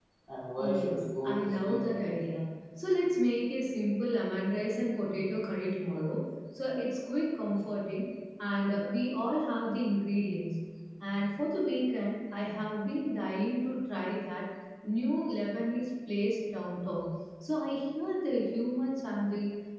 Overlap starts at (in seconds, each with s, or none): 0.6 s